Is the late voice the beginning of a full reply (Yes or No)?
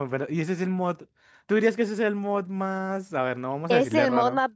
Yes